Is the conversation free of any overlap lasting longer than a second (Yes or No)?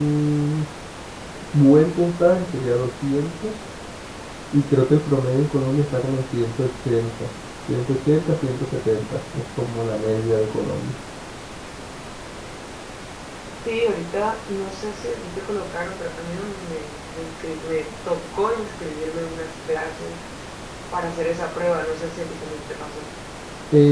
Yes